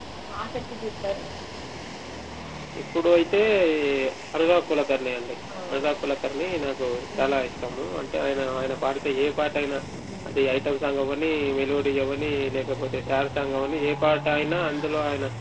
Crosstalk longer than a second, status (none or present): none